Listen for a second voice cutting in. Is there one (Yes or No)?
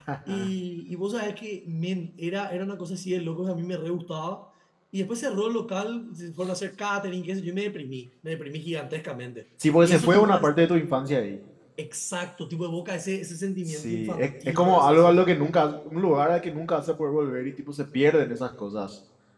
Yes